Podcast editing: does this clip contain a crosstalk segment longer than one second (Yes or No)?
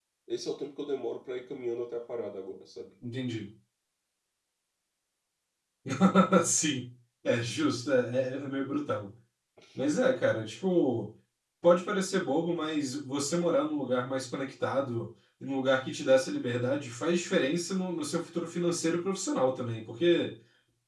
No